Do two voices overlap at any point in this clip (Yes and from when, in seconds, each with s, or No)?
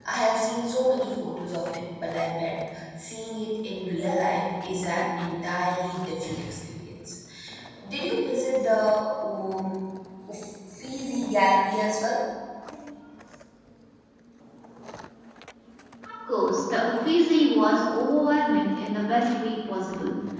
No